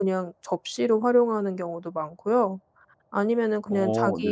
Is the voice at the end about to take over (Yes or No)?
No